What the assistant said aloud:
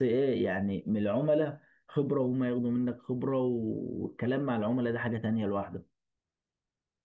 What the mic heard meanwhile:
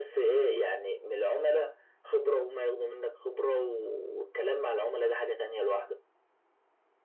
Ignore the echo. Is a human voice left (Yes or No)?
No